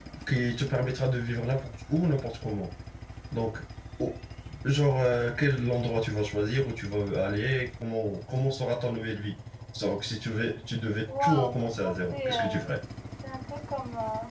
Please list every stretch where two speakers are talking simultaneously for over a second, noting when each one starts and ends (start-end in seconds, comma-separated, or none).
11.1-12.8